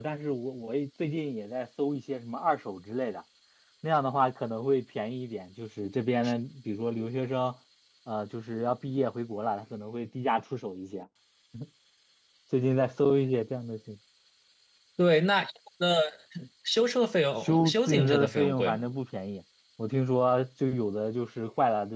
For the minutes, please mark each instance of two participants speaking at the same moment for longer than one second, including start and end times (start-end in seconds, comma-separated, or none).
17.4-18.8